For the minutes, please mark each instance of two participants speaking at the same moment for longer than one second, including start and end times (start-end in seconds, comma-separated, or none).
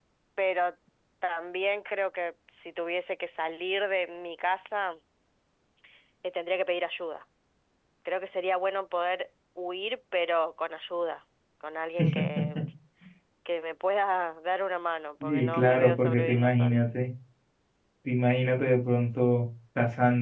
15.2-16.8